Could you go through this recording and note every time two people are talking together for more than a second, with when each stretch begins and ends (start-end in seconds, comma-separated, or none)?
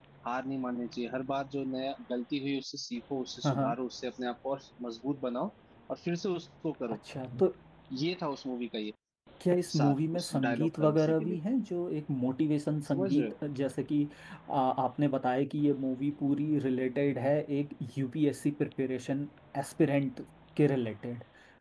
9.8-11.4